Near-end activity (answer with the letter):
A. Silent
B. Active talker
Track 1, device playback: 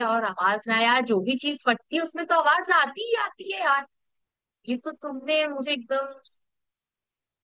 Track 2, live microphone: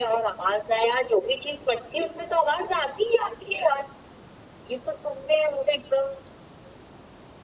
A